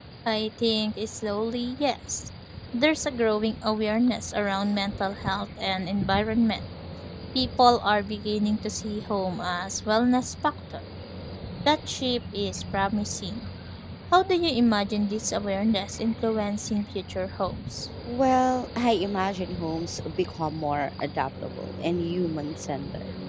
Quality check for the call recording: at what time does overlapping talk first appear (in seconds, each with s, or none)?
none